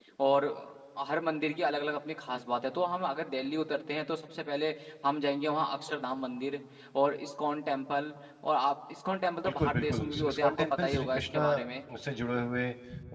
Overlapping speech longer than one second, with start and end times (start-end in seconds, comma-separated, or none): 9.4-11.7